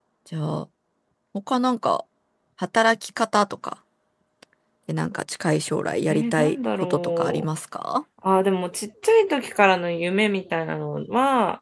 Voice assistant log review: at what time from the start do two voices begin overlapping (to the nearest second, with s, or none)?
6 s